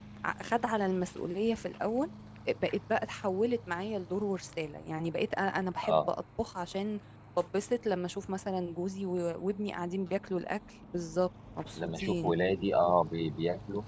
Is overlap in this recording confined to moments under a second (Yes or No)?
Yes